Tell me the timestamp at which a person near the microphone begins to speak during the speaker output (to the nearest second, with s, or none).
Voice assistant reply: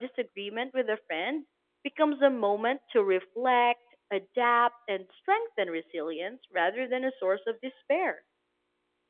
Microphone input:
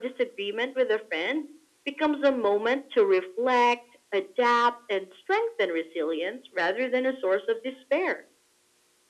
none